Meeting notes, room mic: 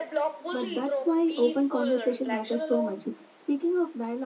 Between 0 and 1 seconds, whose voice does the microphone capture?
both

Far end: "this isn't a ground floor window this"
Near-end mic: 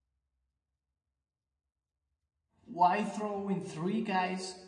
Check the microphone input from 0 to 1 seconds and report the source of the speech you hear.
neither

